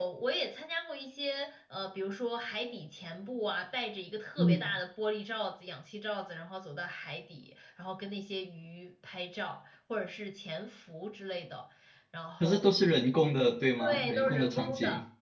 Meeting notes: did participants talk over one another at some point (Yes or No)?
Yes